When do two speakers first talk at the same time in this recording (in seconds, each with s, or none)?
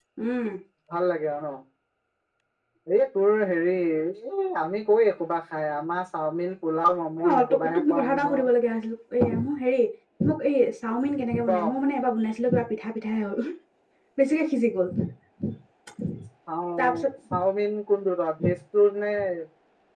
7.2 s